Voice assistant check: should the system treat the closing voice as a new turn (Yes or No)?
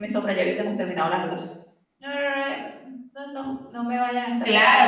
Yes